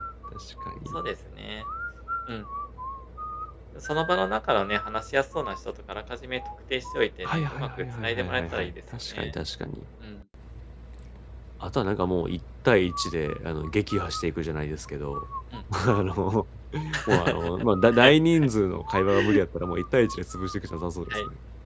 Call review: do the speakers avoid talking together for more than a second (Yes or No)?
No